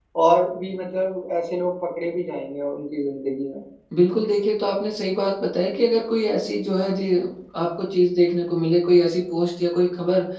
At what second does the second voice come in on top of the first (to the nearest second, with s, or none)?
none